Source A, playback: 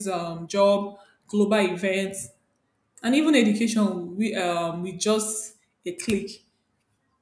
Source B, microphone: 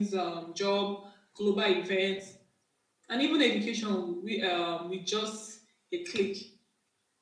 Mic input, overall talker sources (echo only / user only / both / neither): echo only